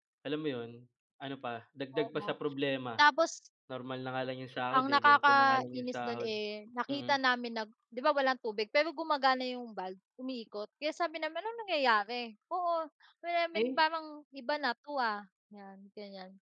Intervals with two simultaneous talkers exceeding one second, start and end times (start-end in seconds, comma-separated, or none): 4.7-6.3